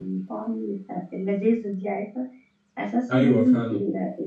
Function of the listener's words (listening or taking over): listening